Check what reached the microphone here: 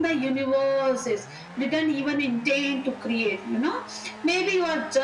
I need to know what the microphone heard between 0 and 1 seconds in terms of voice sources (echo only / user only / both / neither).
echo only